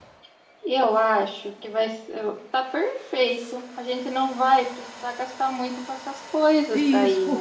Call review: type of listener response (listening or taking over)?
taking over